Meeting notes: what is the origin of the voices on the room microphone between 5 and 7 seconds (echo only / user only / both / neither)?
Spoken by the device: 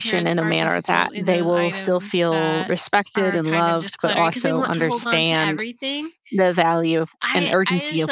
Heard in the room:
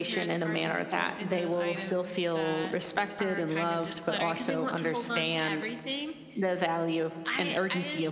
echo only